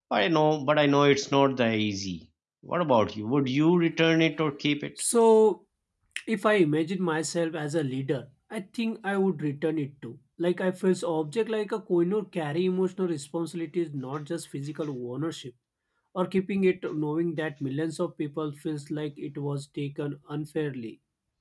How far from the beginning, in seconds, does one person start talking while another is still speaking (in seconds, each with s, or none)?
none